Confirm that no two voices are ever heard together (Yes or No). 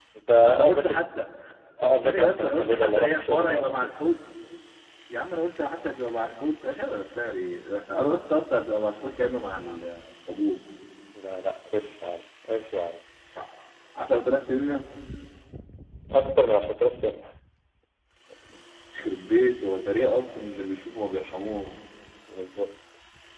No